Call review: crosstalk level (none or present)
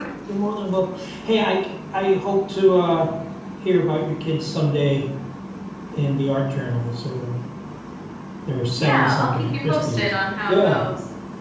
present